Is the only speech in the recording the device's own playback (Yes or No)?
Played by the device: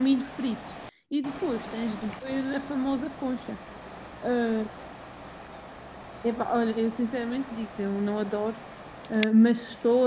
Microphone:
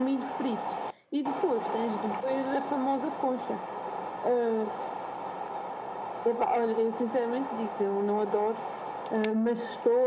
Yes